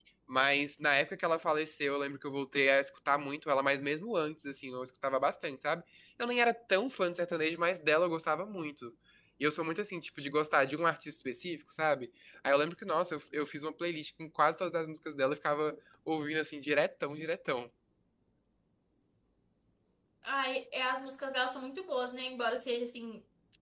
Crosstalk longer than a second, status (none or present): none